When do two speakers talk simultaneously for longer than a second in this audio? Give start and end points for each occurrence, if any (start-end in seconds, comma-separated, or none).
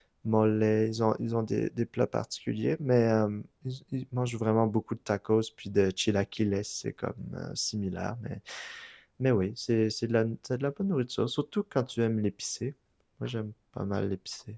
none